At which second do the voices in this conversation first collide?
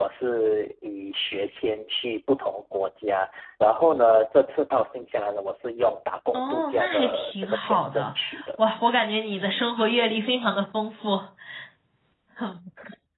6.3 s

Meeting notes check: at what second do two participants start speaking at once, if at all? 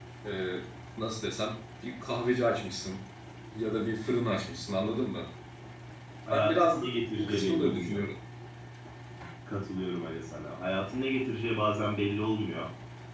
6.3 s

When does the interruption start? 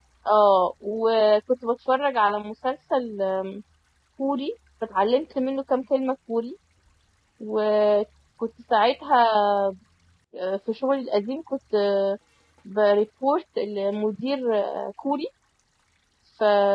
none

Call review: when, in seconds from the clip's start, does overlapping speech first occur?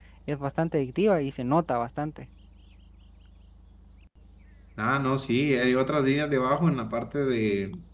none

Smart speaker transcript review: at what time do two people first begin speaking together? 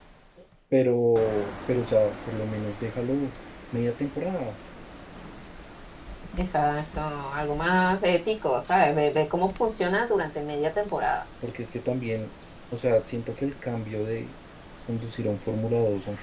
none

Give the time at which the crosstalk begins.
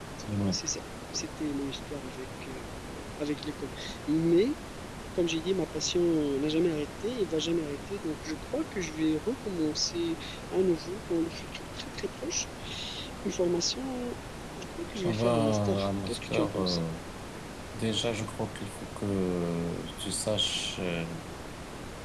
15.0 s

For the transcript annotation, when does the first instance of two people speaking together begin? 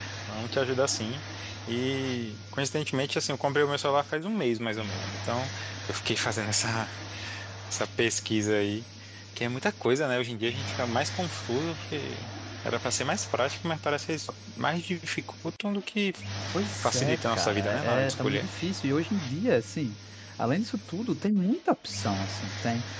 16.8 s

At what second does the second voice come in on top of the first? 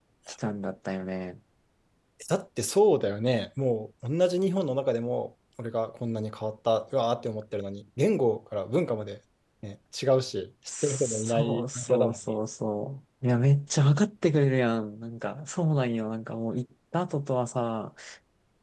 10.7 s

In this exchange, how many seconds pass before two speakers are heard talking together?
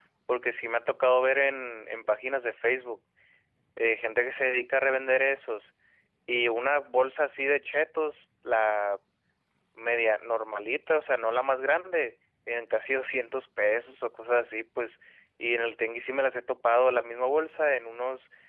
none

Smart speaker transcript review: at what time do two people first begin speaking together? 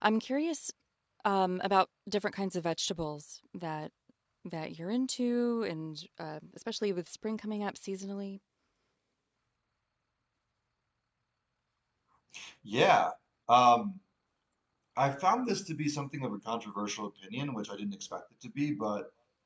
none

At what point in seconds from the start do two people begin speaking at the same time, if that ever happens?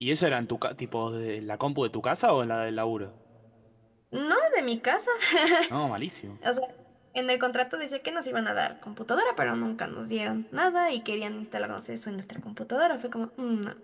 none

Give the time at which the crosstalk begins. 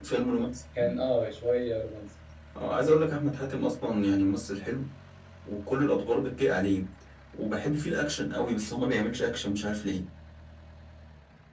none

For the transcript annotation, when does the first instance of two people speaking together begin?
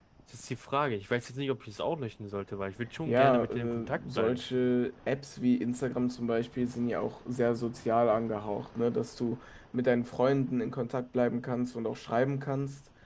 3.1 s

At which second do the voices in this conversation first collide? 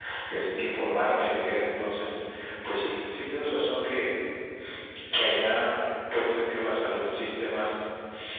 none

